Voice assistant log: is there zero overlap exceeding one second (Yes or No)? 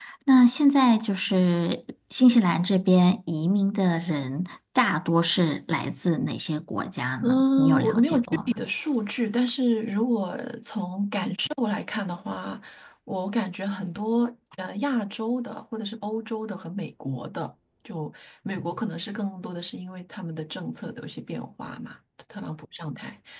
No